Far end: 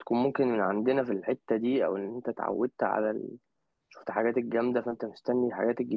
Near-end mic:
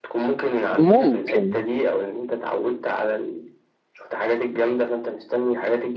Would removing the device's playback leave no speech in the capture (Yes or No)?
No